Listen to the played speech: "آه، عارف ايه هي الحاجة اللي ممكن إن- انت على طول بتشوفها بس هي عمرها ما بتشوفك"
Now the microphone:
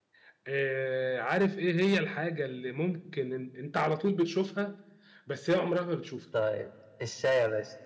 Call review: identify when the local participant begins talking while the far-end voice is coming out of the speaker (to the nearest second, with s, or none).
6 s